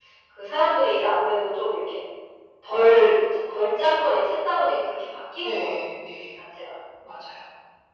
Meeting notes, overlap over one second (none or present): none